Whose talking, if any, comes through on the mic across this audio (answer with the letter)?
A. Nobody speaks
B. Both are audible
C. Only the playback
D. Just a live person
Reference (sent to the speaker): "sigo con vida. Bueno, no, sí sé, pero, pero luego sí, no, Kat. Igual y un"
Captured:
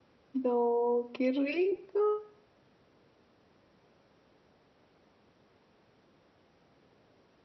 D